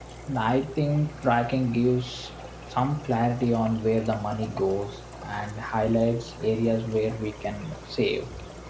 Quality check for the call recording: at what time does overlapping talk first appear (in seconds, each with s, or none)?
none